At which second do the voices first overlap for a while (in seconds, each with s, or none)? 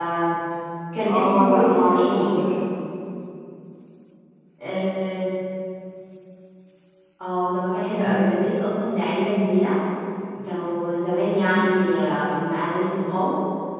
1.1 s